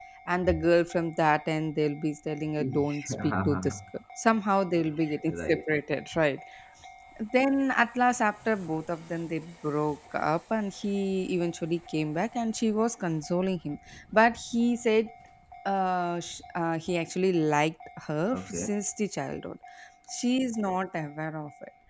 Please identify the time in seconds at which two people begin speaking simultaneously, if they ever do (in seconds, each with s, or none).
2.6 s